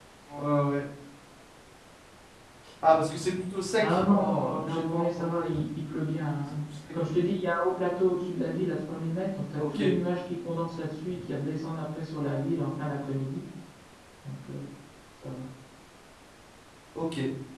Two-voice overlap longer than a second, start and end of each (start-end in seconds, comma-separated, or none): 3.8-5.5